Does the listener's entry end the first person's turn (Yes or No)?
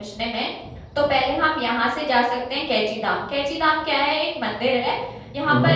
No